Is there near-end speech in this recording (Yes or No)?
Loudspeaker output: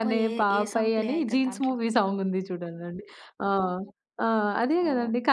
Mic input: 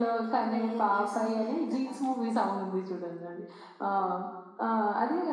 No